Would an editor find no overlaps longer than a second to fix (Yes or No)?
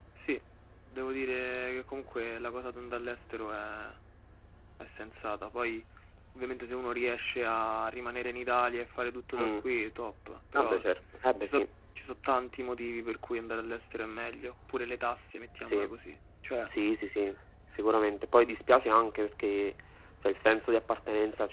Yes